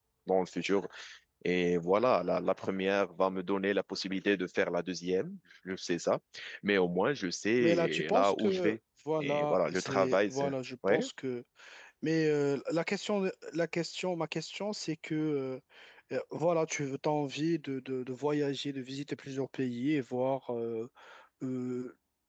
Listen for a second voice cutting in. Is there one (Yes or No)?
Yes